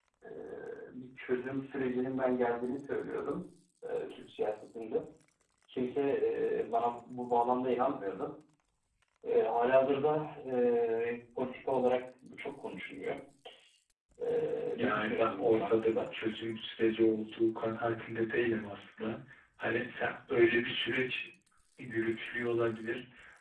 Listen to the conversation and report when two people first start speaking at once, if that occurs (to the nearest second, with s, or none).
15 s